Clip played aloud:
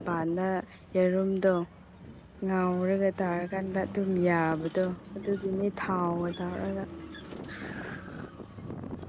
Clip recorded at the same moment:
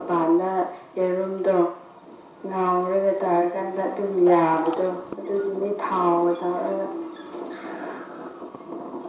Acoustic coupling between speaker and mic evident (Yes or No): Yes